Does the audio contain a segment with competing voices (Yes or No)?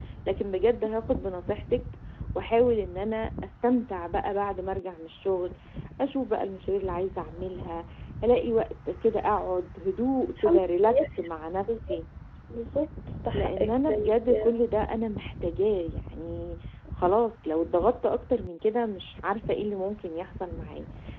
Yes